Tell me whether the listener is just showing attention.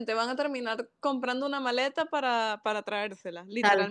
No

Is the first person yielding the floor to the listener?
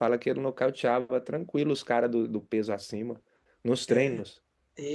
Yes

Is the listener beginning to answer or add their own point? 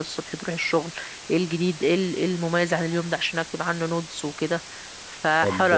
Yes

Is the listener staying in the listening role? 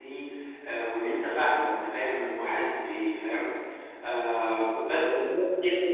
No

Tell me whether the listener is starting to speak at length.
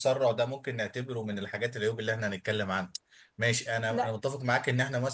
No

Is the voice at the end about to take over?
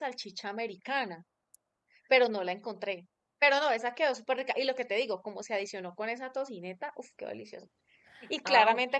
No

